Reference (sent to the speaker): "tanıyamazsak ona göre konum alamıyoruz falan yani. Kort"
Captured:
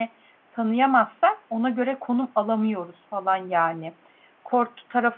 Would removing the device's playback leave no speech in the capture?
Yes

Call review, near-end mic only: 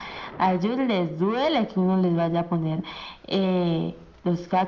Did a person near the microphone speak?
No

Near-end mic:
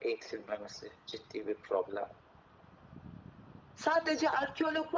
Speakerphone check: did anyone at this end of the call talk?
No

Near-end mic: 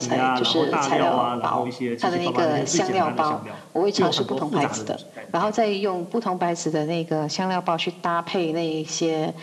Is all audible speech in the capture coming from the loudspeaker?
No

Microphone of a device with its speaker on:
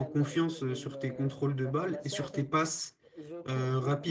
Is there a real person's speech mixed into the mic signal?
Yes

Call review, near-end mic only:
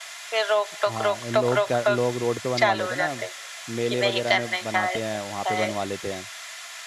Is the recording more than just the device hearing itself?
Yes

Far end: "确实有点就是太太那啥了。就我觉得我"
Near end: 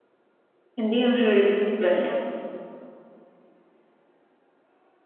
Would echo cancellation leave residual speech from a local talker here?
Yes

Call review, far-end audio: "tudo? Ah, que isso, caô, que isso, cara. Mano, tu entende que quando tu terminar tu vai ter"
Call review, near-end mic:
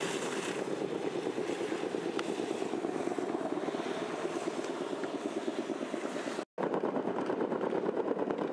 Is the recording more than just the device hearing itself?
No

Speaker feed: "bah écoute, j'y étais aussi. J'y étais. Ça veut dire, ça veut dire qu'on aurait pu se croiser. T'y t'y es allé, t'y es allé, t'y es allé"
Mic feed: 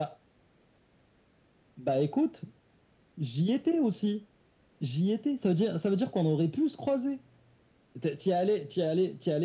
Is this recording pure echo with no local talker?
Yes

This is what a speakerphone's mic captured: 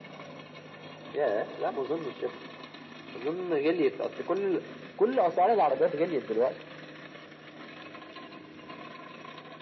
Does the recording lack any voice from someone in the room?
Yes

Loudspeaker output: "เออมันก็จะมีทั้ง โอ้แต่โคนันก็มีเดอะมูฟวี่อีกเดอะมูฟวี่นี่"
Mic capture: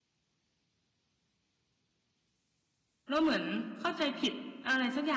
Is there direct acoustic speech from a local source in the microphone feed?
Yes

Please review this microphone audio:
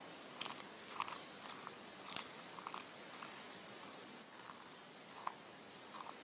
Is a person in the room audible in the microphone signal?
No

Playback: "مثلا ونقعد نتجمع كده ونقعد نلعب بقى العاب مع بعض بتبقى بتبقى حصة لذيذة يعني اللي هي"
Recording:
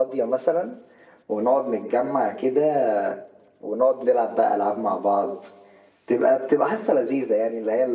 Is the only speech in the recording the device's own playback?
Yes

